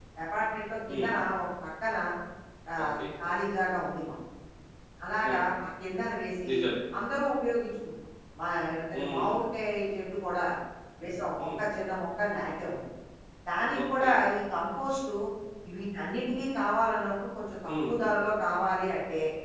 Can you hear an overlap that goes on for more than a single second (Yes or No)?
No